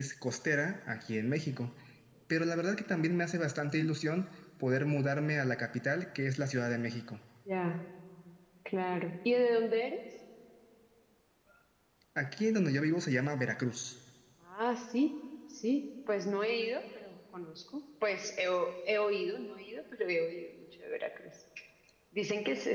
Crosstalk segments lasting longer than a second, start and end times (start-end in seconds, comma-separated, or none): none